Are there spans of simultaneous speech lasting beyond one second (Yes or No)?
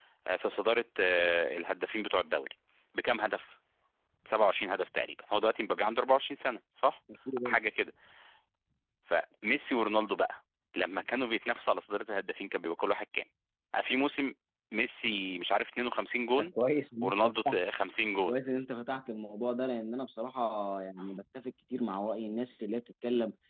No